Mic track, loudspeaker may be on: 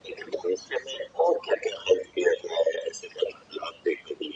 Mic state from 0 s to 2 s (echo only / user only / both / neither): echo only